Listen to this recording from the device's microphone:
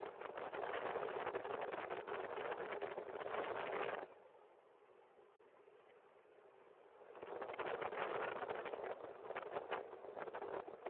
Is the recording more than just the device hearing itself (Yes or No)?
No